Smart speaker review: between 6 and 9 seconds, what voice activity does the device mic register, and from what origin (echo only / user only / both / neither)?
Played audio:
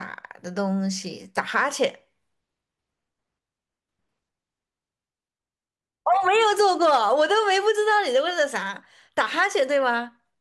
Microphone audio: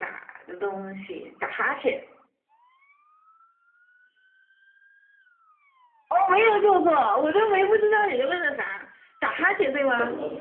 echo only